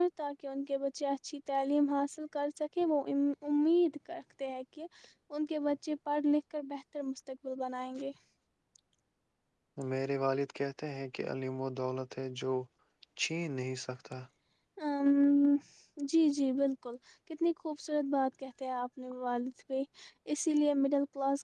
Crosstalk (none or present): none